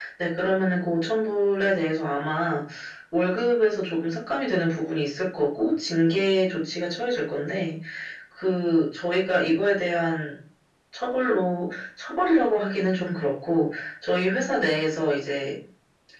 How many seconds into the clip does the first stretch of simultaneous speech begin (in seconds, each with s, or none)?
none